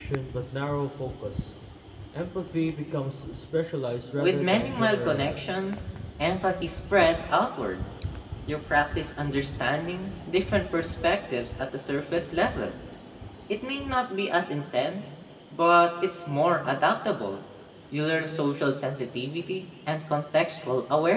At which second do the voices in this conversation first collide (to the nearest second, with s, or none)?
4 s